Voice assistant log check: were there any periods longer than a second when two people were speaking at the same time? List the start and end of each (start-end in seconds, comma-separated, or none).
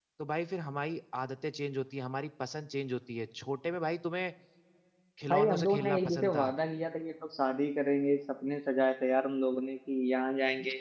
5.3-6.5